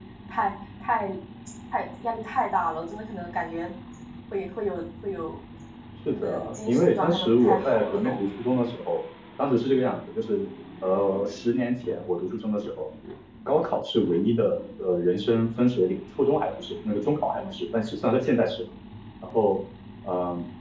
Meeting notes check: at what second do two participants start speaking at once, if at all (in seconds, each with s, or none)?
6.1 s